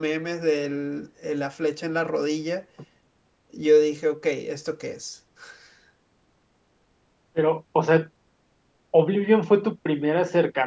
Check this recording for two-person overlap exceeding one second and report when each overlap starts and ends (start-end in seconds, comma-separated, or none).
none